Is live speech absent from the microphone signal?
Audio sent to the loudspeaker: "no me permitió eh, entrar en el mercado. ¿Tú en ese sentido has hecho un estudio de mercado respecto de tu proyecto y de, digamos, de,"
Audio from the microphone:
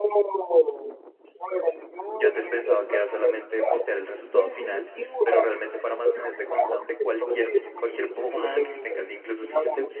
No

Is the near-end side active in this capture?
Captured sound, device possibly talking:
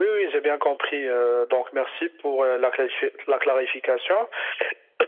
No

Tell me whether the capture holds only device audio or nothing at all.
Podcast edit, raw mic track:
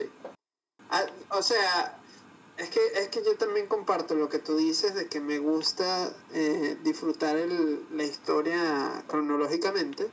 Yes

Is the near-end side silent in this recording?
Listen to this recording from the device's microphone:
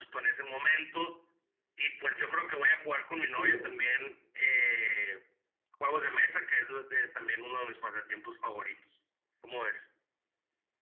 No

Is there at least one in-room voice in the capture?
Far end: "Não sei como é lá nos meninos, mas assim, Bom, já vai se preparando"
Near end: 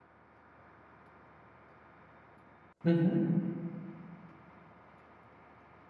Yes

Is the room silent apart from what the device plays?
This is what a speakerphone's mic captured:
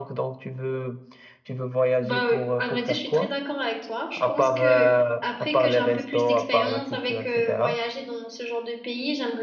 No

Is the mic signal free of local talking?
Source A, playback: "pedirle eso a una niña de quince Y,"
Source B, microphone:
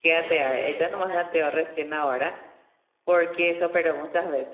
No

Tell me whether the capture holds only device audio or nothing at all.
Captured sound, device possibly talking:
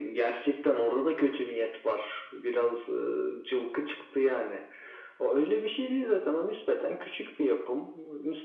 Yes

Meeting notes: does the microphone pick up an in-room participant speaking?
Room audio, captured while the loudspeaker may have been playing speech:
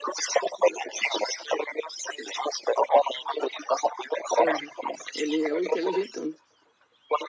Yes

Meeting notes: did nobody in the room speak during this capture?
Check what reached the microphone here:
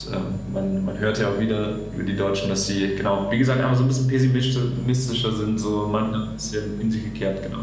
No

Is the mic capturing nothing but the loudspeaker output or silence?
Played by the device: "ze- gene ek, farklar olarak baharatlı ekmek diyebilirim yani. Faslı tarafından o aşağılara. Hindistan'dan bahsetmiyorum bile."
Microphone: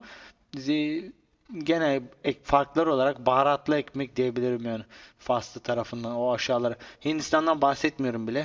Yes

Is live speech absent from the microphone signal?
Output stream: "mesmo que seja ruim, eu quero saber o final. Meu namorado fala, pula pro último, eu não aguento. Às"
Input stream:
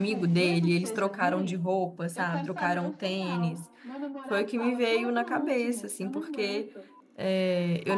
No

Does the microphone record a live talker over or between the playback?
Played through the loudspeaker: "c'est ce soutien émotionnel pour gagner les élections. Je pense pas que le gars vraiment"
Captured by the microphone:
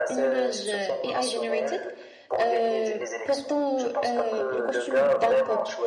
Yes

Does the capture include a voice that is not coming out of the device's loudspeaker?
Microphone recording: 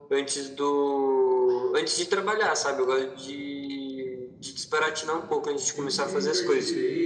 Yes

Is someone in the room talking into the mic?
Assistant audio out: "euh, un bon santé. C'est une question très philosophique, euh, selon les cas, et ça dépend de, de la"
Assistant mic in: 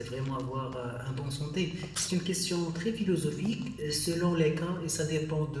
No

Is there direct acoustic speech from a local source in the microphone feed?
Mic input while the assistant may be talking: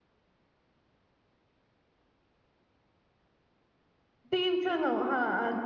Yes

